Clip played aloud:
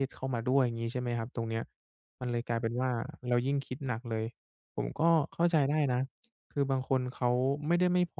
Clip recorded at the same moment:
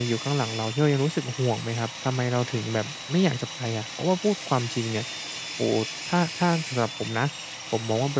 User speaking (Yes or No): Yes